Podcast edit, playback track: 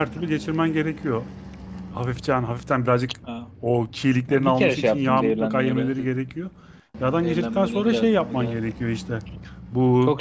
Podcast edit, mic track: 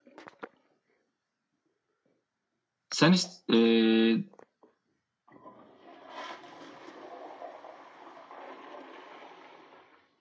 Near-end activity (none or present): present